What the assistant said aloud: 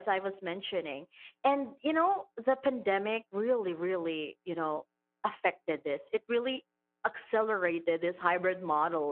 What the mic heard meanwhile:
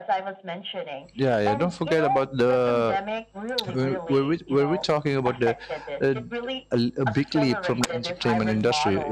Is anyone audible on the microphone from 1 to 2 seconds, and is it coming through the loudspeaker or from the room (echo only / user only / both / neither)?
both